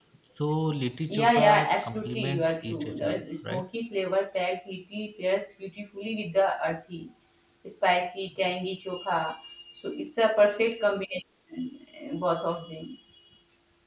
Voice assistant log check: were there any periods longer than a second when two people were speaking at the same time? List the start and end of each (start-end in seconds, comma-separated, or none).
1.1-3.7